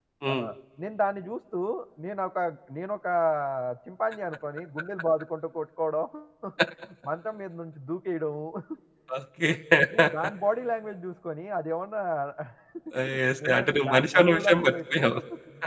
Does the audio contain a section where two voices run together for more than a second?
Yes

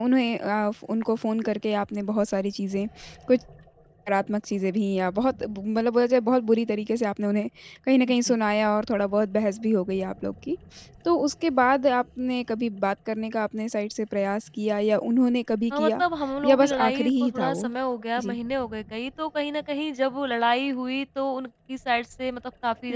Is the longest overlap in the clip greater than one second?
Yes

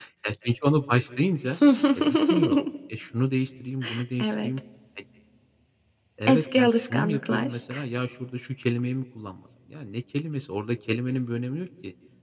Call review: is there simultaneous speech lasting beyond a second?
Yes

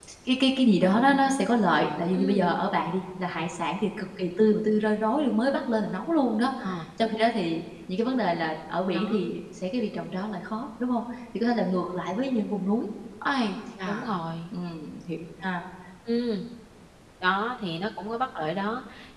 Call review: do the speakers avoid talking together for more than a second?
Yes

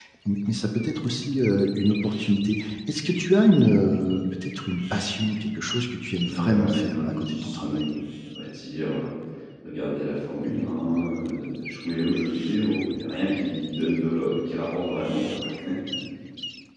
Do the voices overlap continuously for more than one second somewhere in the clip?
Yes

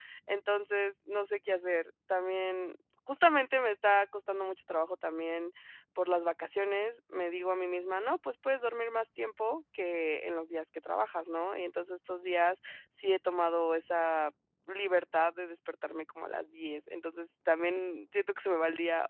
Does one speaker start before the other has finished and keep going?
No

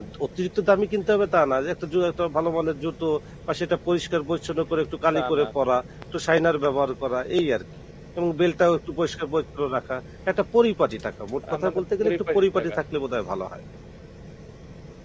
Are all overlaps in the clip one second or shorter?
No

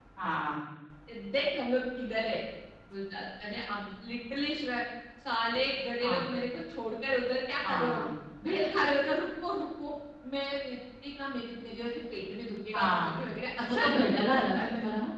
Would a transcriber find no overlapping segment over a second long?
No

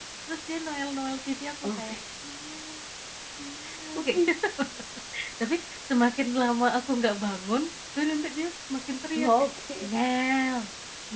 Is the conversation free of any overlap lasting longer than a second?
Yes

